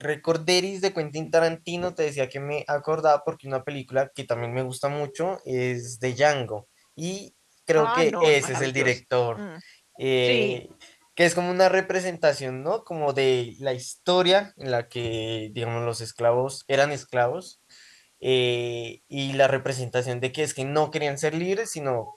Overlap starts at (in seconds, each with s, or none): 7.8 s